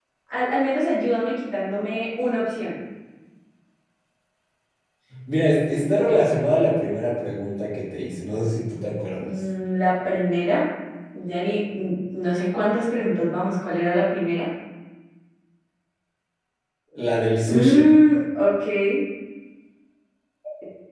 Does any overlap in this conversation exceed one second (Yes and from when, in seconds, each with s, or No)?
No